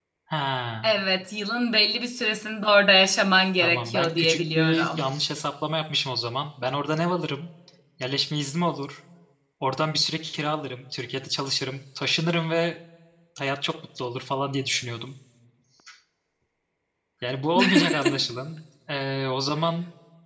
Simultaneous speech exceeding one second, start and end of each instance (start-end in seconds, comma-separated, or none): 3.6-5.1